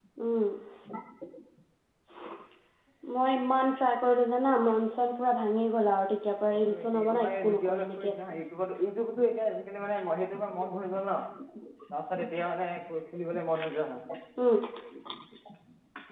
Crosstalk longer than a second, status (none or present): present